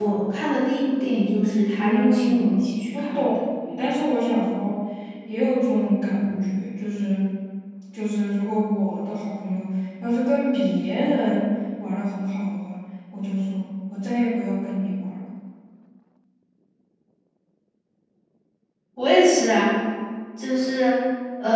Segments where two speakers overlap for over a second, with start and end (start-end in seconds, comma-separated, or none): 1.4-3.3